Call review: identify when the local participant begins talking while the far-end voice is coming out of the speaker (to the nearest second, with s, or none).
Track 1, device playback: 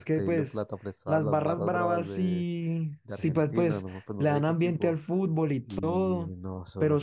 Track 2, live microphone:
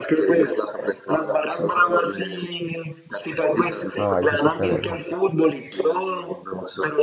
4 s